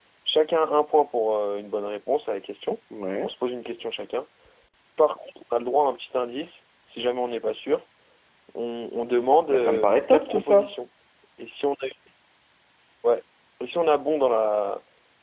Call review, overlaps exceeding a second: present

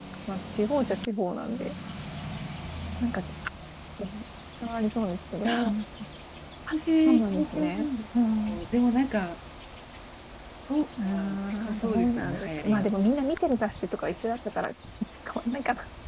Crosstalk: present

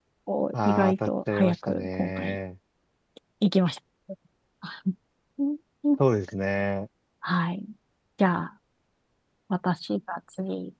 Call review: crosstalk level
present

